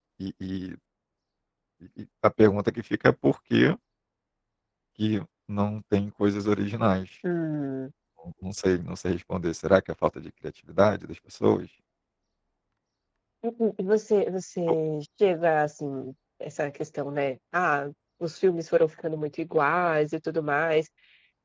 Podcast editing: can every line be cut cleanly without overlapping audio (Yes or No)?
Yes